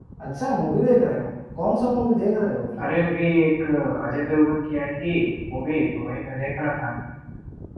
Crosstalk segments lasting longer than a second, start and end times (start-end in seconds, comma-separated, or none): none